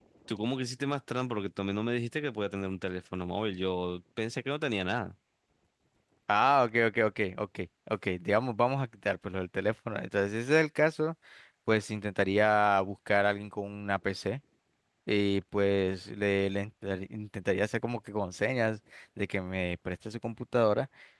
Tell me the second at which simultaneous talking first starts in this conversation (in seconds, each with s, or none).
none